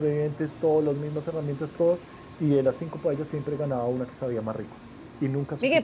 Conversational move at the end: taking over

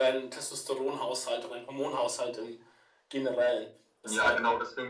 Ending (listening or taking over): taking over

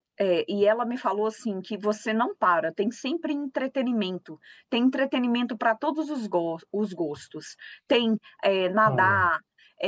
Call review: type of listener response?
listening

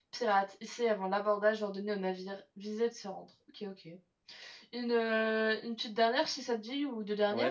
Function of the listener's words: taking over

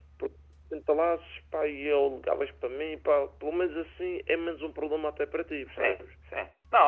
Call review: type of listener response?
taking over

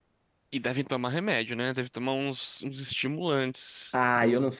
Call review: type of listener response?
taking over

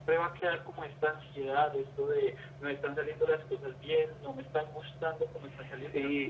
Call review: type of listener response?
taking over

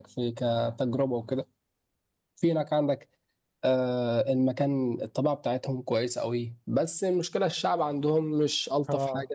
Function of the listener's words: listening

